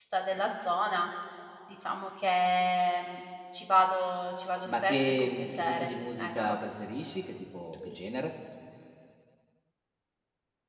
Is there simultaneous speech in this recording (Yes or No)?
Yes